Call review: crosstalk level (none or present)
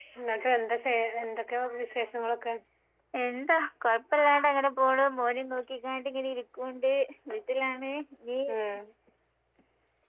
none